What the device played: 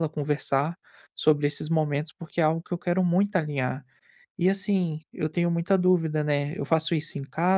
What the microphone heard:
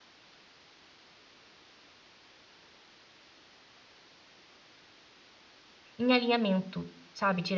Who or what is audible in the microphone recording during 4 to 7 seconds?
user only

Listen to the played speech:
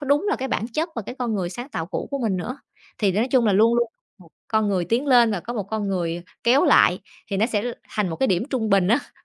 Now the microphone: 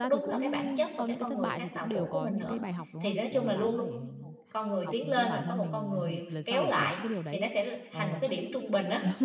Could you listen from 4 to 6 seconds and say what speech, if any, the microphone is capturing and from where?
both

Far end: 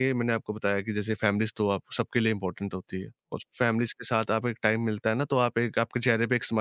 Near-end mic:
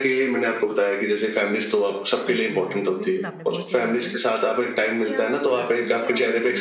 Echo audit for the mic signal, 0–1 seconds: echo only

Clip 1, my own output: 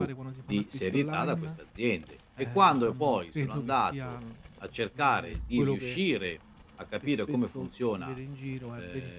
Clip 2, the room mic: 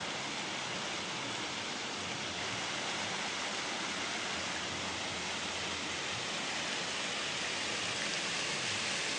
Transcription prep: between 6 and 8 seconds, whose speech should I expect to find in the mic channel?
neither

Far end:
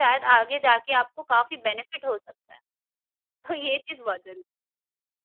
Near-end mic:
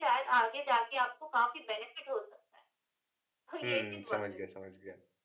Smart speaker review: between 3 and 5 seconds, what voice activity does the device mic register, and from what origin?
both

